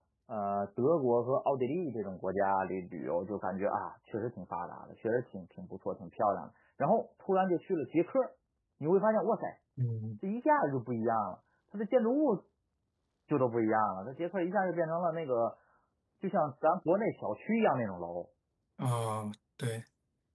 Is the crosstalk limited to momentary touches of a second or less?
Yes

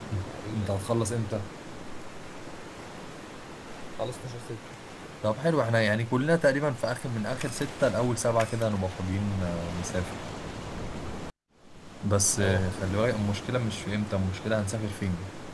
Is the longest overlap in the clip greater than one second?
No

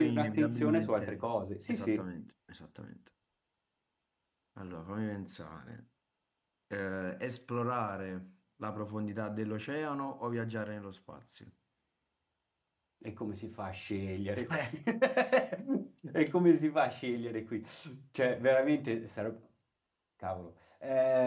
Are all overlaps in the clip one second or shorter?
No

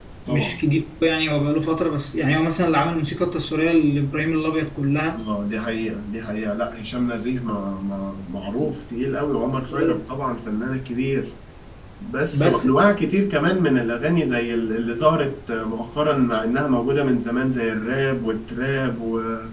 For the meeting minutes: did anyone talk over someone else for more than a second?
No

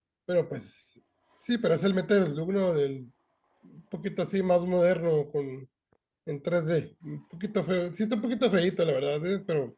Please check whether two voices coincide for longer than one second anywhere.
No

